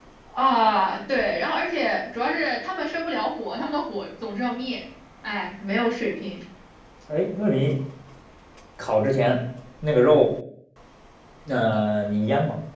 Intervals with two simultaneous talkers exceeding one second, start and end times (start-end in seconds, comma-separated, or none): none